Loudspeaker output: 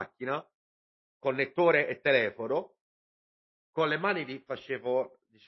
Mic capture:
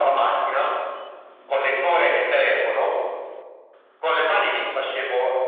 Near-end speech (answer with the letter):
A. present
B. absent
B